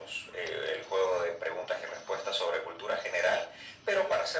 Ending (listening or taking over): listening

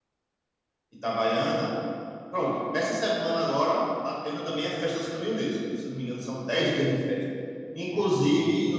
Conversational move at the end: listening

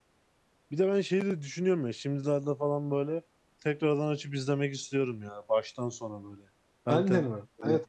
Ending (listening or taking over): taking over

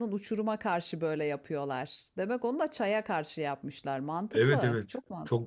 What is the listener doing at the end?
taking over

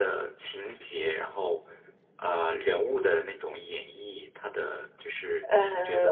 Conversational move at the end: taking over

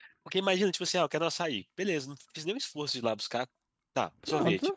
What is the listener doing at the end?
listening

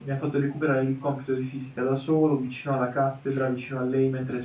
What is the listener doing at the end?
listening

